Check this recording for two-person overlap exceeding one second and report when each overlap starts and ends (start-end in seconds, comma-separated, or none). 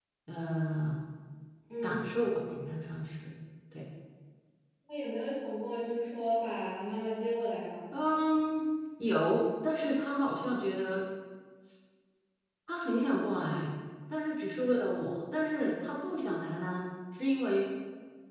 none